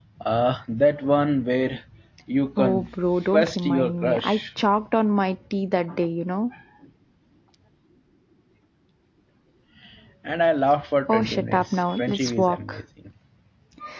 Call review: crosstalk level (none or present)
present